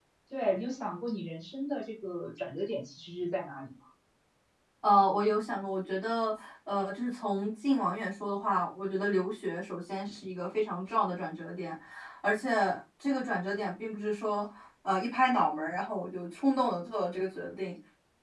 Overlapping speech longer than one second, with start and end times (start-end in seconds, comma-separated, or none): none